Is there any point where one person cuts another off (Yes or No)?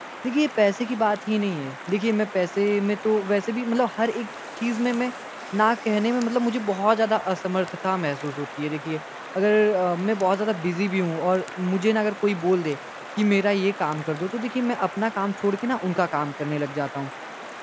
No